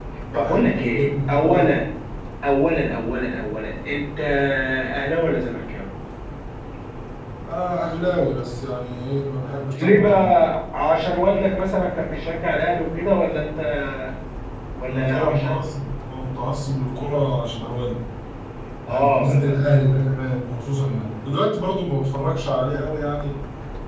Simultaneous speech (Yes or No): Yes